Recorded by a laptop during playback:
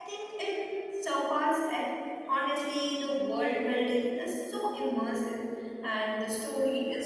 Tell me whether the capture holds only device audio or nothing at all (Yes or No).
No